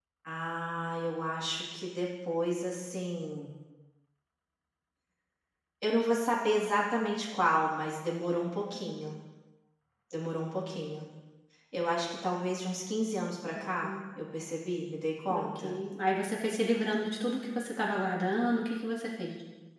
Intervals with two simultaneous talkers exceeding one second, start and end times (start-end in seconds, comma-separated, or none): none